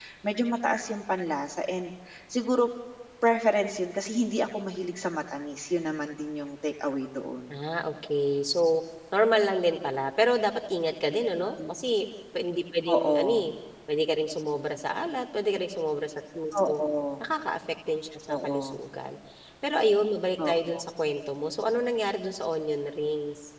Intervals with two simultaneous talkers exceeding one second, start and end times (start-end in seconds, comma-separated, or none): none